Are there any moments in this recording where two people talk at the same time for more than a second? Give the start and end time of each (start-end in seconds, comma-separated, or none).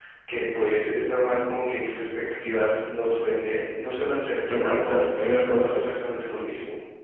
4.5-5.9